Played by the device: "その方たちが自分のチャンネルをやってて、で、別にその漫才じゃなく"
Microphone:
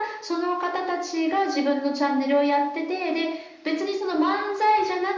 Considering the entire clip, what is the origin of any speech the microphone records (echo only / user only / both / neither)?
echo only